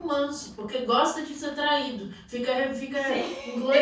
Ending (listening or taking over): listening